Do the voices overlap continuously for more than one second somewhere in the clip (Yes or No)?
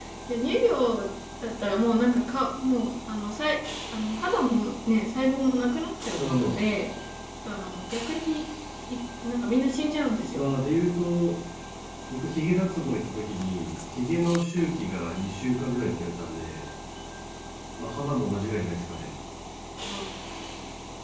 No